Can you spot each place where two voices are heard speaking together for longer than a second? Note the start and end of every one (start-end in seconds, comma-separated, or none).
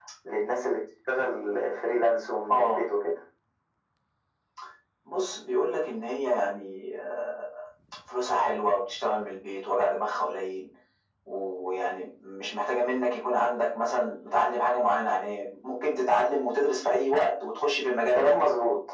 none